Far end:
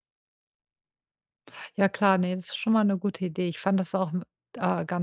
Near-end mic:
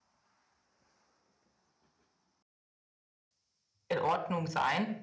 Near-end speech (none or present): present